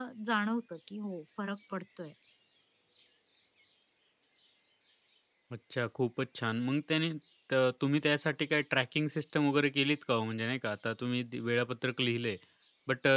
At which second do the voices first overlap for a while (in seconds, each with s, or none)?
none